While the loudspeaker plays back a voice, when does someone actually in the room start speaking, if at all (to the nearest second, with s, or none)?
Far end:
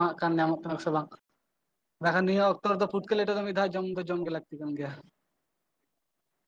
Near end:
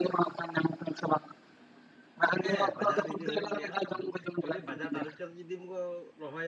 2 s